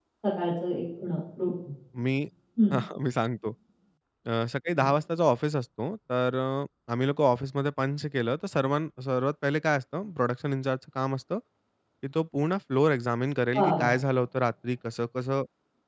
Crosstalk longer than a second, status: none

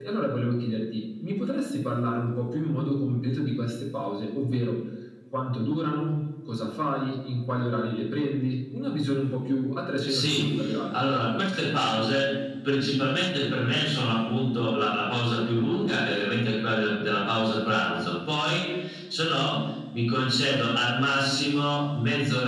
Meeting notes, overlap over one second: none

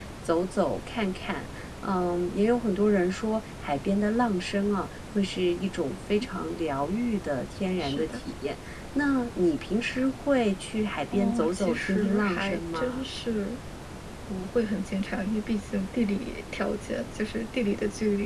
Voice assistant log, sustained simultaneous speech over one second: present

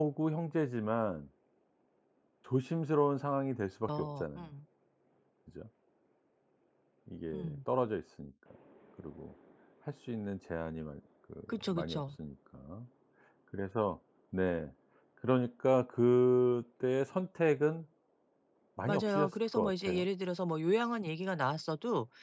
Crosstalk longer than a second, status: present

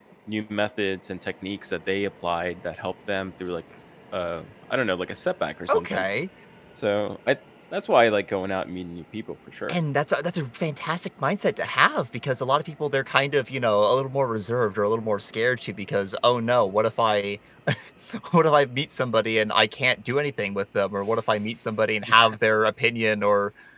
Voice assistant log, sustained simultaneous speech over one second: none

